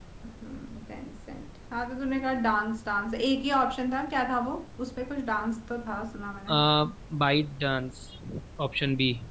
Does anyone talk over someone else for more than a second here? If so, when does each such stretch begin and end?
none

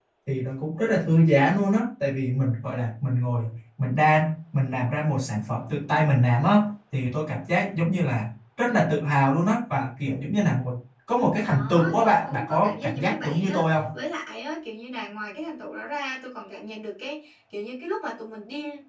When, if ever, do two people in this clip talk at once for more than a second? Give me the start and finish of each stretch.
11.5-13.7

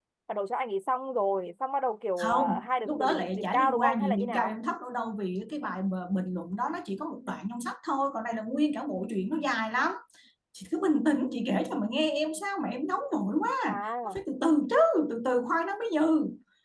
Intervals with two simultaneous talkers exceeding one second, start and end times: 2.2-4.5

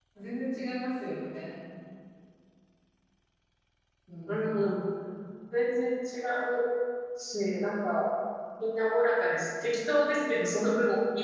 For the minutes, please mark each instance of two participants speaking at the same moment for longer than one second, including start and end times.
none

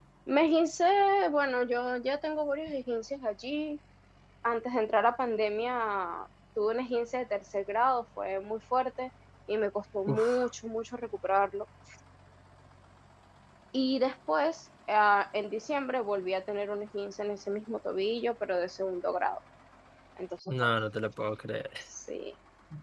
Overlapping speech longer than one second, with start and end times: none

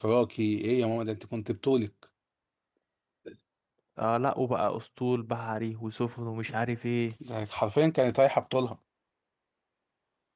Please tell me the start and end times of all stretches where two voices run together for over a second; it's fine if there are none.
none

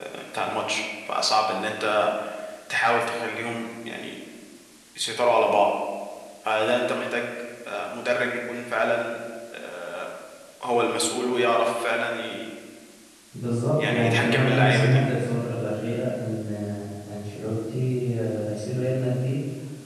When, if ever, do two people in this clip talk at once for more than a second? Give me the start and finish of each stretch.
13.8-15.0

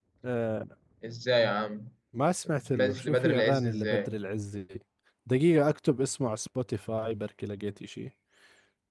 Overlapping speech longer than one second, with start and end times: 2.5-4.1

